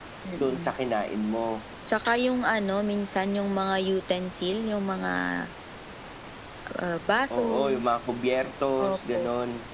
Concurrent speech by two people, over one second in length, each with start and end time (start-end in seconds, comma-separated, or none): none